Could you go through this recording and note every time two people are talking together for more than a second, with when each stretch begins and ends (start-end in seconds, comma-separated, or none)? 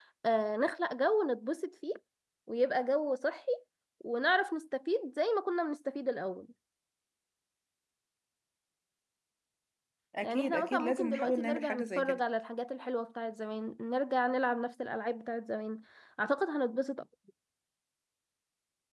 10.2-12.2